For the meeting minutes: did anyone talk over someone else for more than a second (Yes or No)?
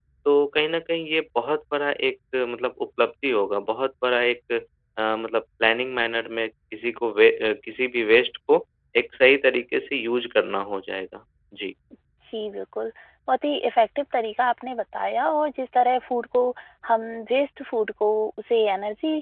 No